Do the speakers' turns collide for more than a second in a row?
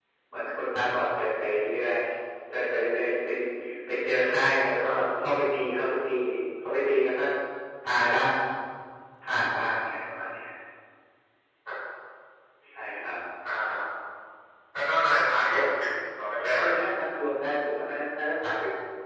No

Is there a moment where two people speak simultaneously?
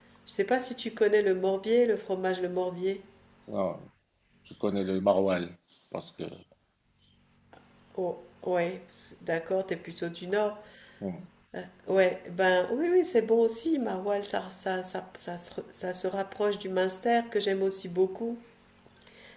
No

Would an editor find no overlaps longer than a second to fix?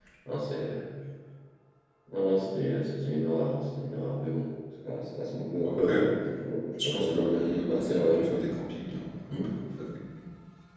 No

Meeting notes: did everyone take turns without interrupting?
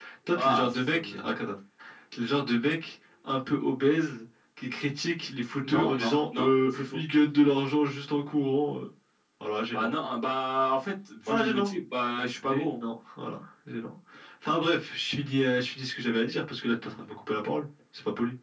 No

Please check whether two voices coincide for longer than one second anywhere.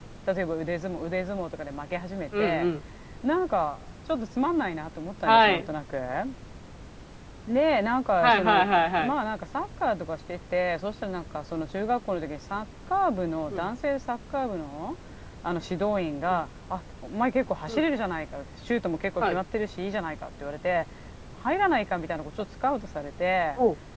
No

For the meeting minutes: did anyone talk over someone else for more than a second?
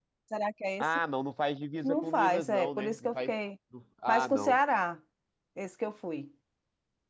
Yes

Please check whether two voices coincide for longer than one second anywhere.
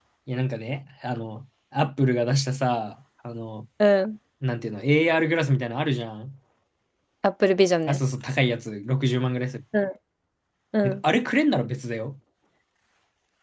No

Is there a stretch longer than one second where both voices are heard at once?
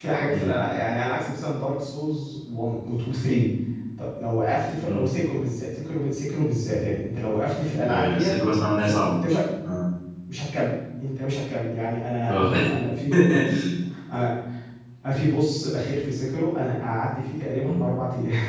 No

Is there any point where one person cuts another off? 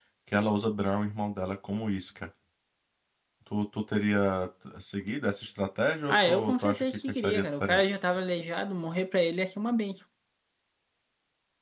Yes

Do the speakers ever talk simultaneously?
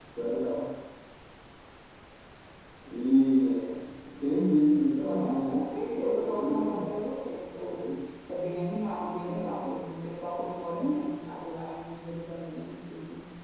Yes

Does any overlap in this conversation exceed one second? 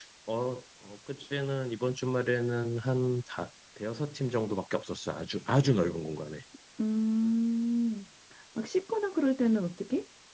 No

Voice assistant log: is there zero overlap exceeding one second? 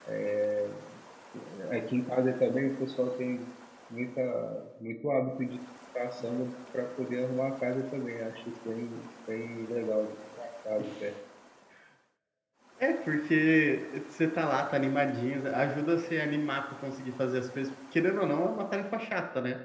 Yes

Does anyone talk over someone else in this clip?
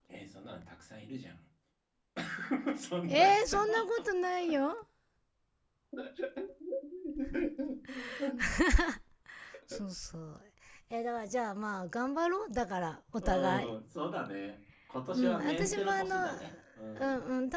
Yes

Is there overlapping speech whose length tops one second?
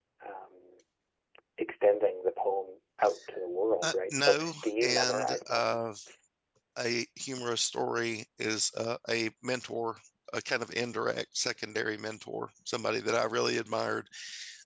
Yes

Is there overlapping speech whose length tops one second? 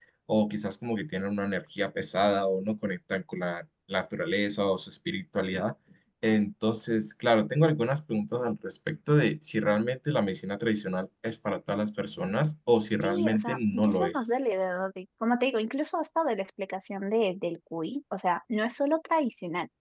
Yes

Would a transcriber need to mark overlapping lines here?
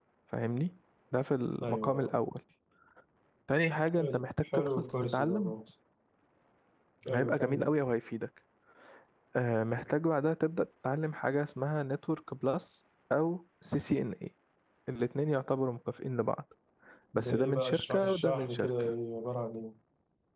Yes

